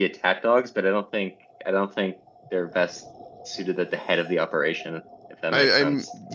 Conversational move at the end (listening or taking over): taking over